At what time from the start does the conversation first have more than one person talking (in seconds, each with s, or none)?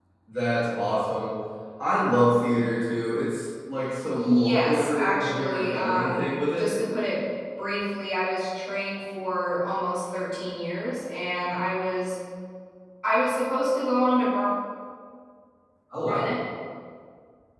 4.1 s